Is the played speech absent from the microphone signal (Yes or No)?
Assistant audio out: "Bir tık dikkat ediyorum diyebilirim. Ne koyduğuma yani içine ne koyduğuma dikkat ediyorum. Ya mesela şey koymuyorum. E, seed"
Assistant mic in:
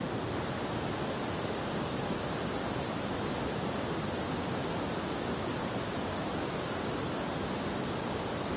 Yes